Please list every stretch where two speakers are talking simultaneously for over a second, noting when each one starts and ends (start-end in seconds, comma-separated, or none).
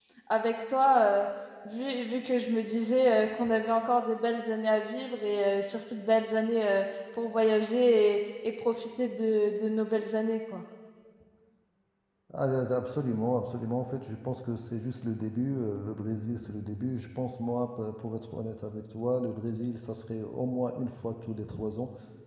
none